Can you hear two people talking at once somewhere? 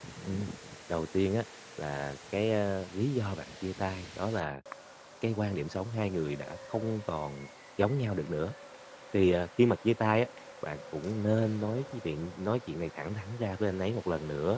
No

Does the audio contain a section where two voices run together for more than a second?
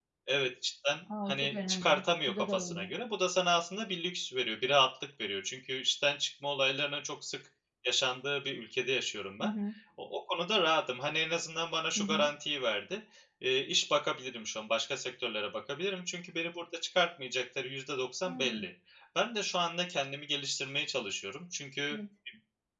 Yes, from 1.3 s

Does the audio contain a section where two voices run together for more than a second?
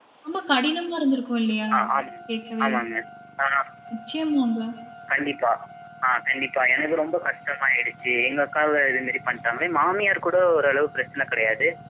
No

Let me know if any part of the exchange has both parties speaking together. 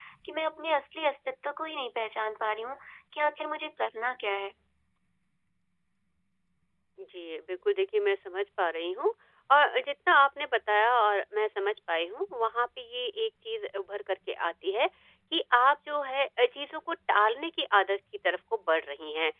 No

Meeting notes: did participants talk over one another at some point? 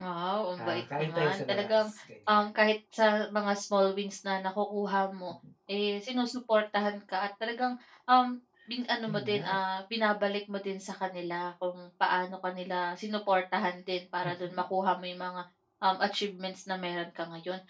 Yes, from 0.6 s

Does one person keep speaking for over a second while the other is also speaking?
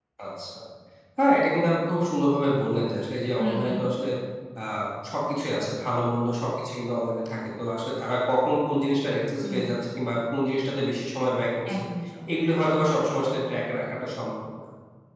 No

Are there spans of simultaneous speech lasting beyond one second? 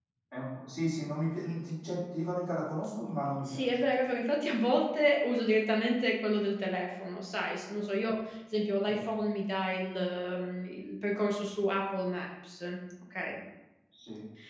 No

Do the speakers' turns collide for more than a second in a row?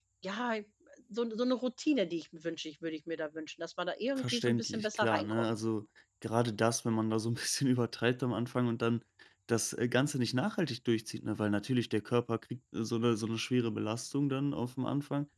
Yes, from 4.2 s

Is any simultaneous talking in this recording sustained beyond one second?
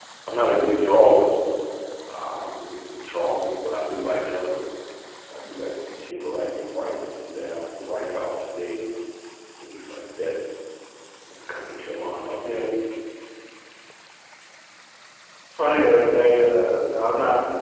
No

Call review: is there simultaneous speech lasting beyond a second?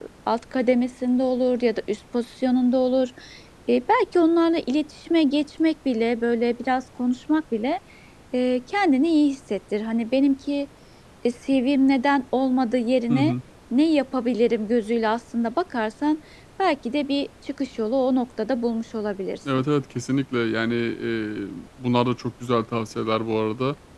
No

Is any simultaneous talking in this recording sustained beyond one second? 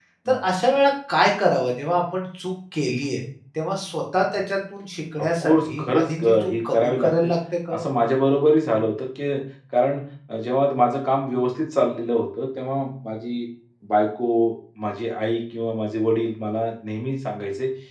Yes, from 5.2 s

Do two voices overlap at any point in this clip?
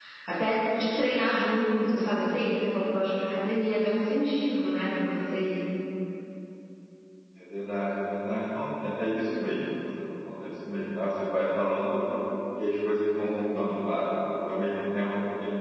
No

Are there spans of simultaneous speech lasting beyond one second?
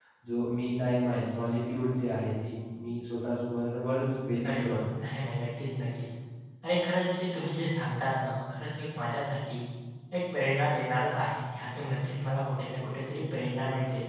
No

